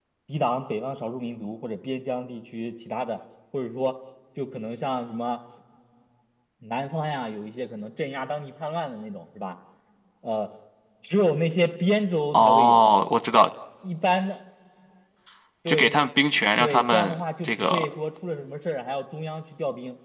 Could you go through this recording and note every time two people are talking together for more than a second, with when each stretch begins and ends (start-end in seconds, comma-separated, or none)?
16.6-17.9